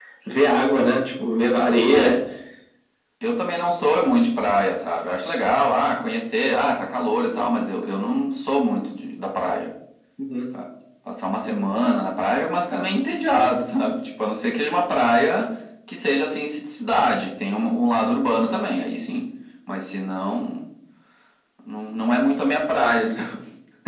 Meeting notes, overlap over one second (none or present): none